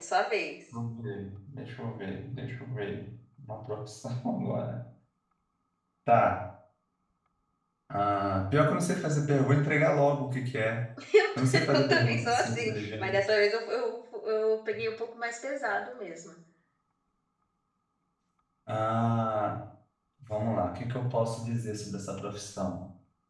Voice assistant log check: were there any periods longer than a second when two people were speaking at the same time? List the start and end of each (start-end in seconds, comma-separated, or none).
11.4-13.2